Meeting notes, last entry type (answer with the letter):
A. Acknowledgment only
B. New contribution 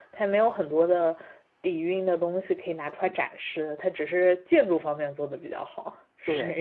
B